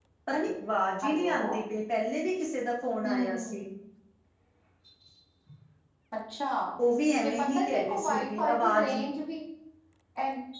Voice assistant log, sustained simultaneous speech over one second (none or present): present